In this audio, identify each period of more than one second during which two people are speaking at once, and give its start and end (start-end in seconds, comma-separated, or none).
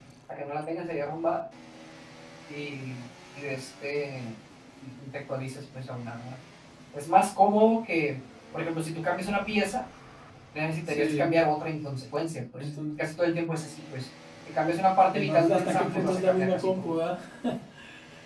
15.1-16.9